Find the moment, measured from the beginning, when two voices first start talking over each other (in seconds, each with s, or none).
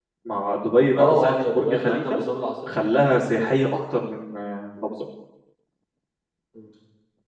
1.0 s